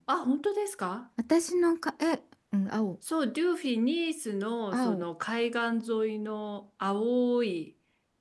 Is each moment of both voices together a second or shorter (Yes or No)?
Yes